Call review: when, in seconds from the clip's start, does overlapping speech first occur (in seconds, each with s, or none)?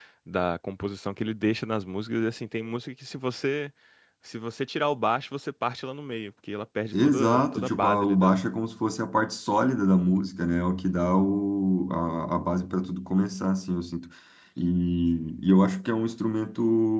6.9 s